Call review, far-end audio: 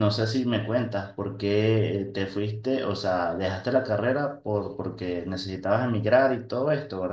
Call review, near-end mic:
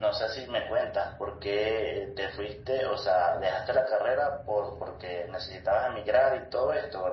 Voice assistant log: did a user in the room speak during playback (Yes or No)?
No